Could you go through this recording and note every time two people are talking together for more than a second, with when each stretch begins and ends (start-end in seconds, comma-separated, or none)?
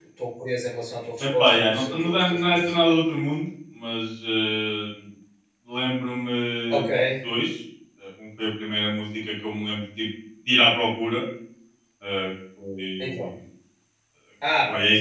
1.2-2.8